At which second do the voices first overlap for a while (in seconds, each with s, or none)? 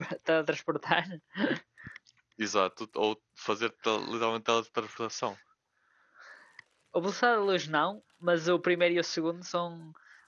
none